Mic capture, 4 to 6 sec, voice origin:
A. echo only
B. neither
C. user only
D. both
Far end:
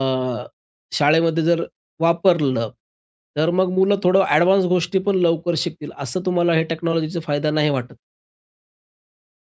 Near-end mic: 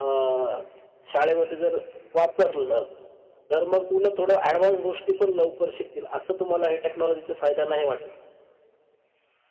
A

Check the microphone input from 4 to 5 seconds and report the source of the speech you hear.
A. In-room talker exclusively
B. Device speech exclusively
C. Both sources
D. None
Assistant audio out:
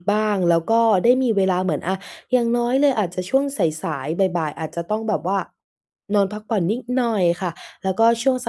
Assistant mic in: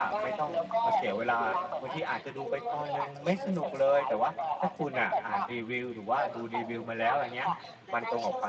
C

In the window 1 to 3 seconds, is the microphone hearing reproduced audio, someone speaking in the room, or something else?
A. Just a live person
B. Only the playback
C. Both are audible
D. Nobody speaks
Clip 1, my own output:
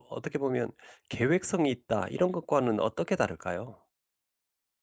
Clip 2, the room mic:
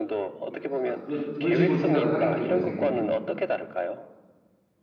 C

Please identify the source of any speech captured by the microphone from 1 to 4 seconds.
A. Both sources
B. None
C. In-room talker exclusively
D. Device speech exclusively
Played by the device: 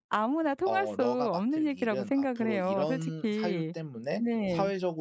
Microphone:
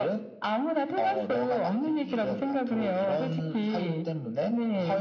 D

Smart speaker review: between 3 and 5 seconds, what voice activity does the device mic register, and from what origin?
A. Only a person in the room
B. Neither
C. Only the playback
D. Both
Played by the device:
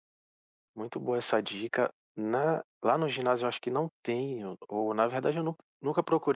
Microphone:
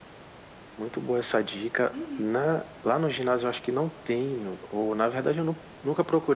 C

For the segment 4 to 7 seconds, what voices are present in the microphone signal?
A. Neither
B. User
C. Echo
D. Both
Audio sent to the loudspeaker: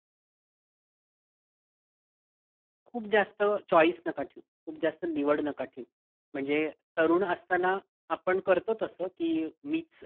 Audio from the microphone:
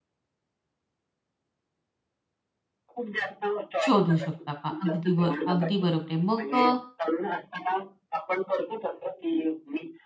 D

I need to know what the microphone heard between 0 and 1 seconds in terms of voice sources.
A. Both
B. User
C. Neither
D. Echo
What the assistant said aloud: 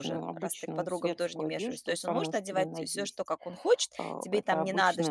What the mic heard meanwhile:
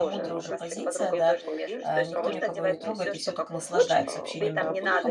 A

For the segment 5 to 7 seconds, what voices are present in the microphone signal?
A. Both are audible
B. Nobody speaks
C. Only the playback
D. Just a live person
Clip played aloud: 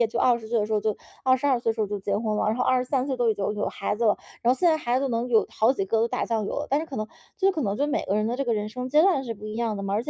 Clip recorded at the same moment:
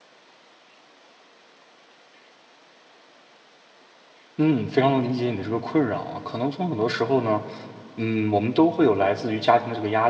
D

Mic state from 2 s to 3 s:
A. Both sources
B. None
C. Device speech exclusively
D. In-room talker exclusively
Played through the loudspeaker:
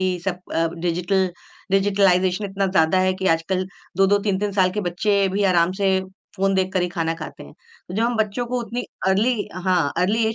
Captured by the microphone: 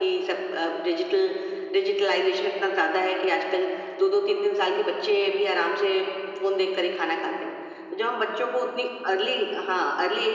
C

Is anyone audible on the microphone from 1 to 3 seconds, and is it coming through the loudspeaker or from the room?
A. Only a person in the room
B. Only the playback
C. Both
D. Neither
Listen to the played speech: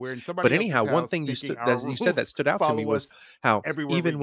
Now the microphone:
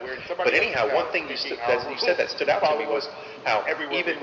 B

